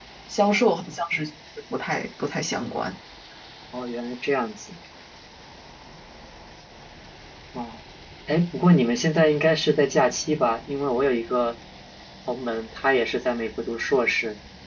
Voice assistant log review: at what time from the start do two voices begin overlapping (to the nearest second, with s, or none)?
none